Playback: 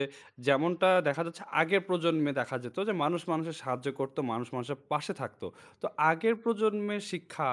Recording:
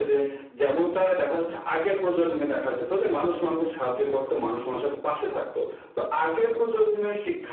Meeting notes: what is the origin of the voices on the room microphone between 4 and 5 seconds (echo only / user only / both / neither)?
echo only